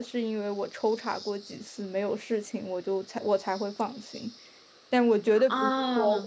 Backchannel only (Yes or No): Yes